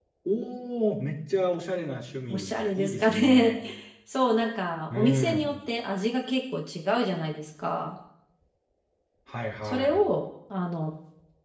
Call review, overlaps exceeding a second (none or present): present